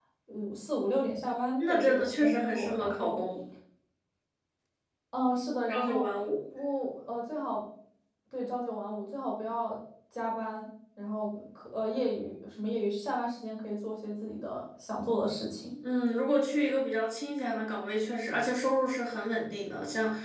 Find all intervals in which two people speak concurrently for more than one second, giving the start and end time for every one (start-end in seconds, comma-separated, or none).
1.6-3.2